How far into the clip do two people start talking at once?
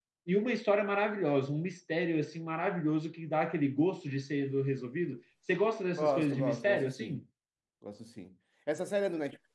6.0 s

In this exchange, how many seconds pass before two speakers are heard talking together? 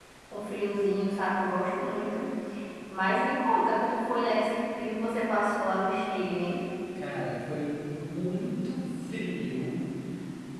none

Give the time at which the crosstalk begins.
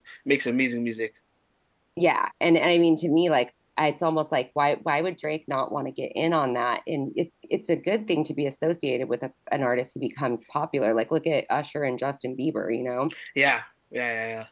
none

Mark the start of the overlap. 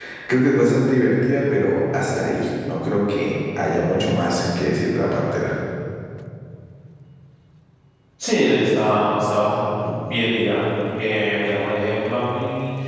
none

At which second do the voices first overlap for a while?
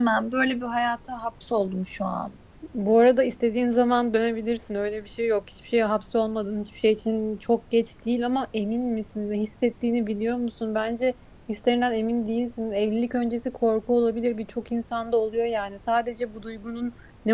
none

